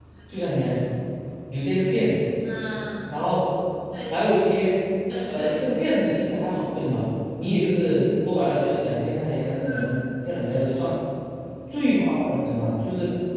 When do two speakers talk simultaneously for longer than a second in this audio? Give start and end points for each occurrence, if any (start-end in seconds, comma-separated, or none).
none